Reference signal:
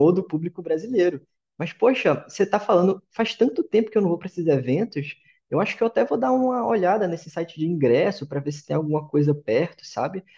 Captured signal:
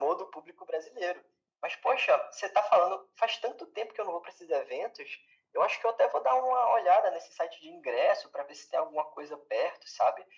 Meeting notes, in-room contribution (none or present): none